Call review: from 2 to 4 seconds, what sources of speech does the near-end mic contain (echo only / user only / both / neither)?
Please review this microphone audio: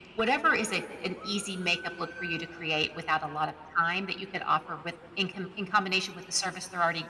echo only